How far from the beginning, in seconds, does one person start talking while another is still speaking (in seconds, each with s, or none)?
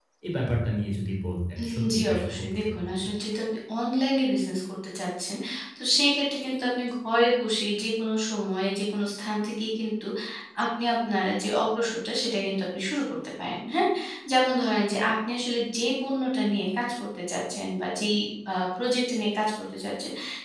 1.6 s